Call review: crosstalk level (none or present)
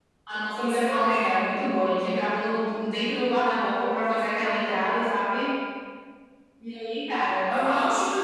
present